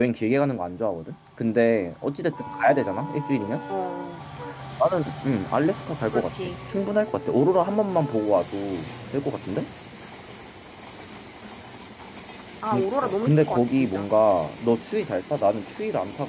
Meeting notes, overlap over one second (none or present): present